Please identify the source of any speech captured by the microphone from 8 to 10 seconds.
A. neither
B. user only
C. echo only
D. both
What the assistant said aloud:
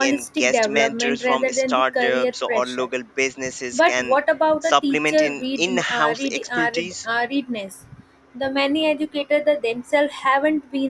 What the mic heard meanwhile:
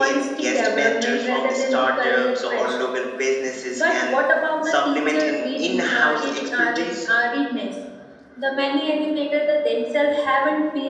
C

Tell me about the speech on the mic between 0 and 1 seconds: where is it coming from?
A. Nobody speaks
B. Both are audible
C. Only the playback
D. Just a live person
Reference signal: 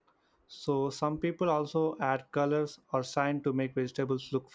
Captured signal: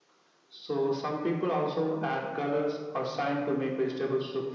C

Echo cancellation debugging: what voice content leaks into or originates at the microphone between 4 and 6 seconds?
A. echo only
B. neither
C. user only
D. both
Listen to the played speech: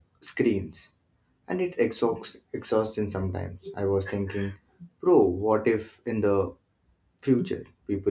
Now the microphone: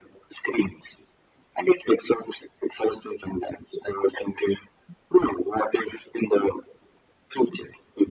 A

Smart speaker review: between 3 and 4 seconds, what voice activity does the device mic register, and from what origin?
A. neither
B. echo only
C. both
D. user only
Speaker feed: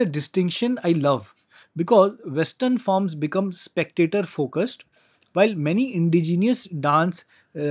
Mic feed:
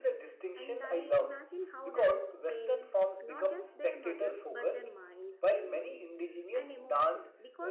C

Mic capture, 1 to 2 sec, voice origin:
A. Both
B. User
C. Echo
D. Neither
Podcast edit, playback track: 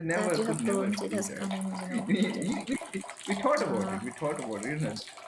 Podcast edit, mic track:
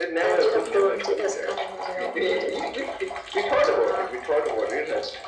C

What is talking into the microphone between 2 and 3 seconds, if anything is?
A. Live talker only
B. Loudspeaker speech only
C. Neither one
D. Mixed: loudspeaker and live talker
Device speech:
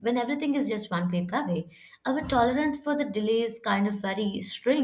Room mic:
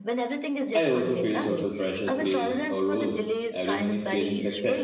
D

